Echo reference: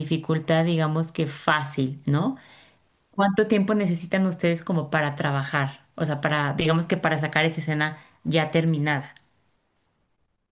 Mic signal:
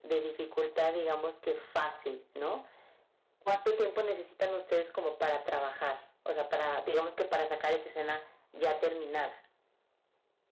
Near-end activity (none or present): none